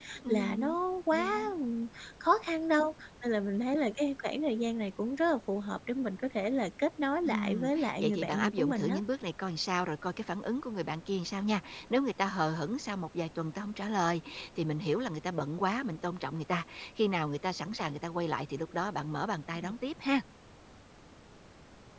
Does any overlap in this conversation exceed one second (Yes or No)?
Yes